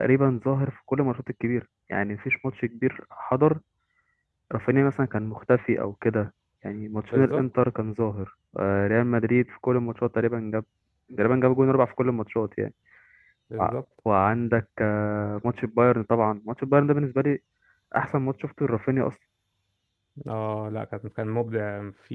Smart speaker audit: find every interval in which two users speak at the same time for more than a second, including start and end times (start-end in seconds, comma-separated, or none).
none